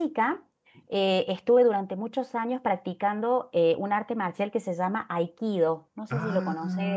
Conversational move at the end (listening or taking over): taking over